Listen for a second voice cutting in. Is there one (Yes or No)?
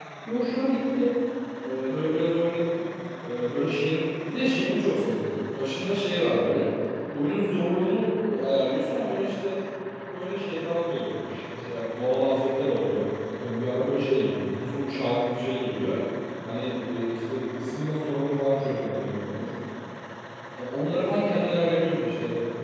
No